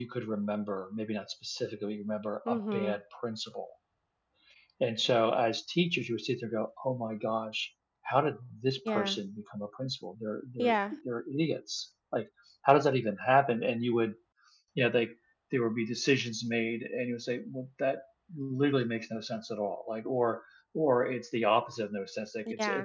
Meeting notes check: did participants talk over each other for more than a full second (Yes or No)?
No